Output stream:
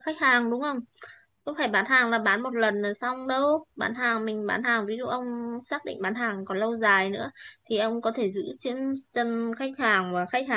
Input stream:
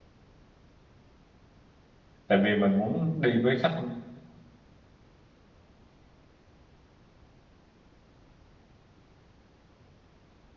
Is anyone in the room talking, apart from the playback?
Yes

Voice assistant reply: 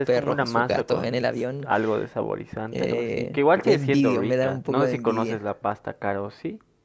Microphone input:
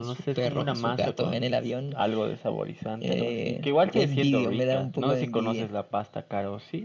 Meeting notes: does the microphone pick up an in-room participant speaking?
No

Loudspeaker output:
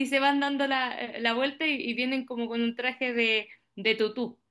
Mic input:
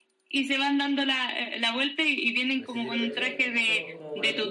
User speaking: Yes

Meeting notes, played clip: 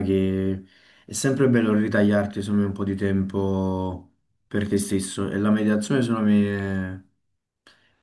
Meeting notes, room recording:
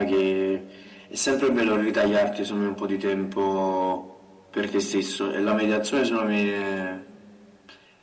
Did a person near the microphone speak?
No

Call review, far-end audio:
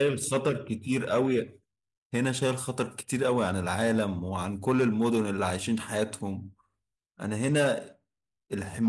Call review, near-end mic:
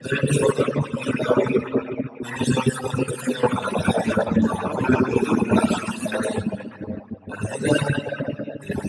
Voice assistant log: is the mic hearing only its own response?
No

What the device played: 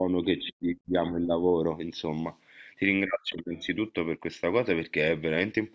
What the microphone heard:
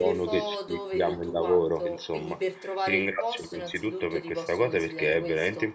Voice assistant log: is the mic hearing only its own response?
No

